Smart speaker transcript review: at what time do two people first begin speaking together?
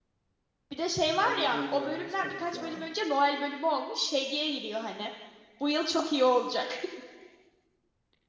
1.2 s

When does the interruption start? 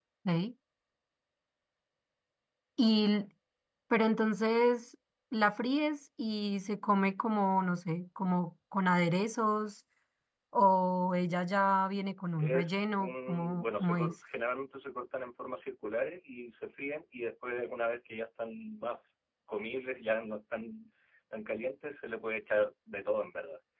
12.4 s

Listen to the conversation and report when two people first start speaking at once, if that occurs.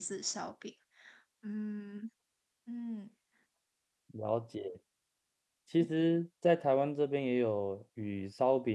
none

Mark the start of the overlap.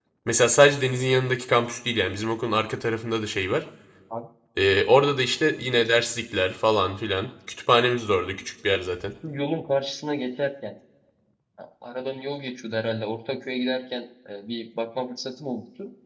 none

